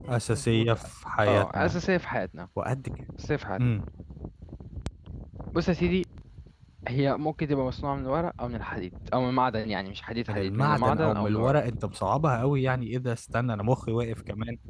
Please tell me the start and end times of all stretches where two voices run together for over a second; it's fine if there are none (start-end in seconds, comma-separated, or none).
10.3-11.6